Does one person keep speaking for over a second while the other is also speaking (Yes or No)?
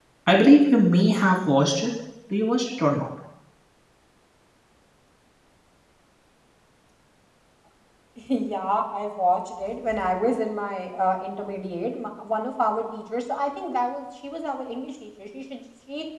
No